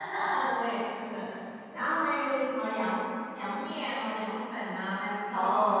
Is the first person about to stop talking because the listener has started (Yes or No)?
Yes